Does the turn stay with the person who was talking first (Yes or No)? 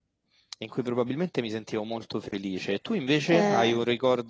Yes